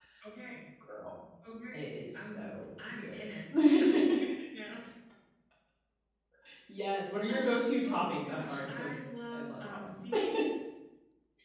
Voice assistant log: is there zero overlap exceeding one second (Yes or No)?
No